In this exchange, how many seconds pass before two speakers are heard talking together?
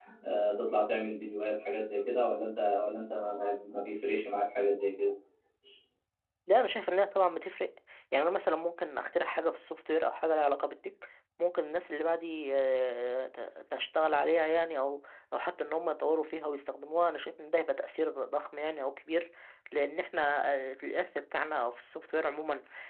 none

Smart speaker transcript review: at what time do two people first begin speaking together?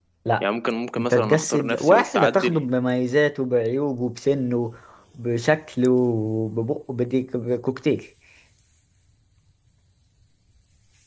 1.0 s

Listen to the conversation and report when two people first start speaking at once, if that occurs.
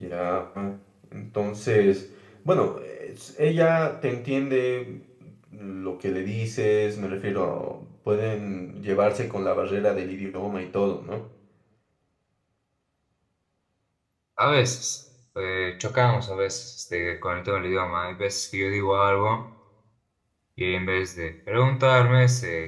none

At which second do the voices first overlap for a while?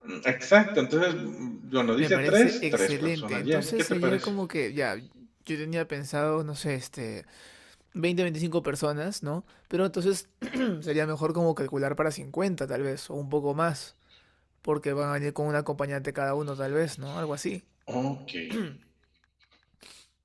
1.9 s

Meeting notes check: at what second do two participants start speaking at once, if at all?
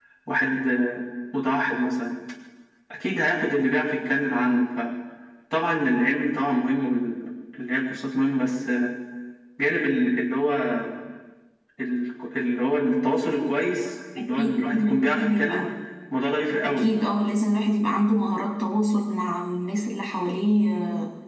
14.2 s

